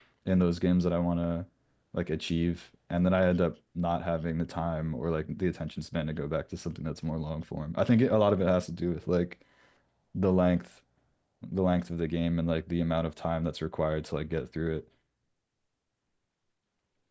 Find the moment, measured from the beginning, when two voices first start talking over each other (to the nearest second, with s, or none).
none